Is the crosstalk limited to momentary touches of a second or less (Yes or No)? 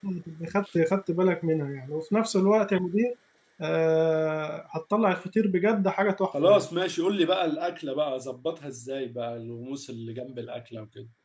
Yes